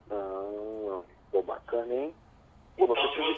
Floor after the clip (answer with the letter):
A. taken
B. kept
A